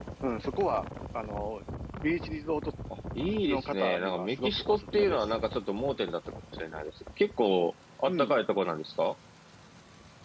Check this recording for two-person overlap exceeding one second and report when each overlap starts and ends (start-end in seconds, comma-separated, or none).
3.2-5.3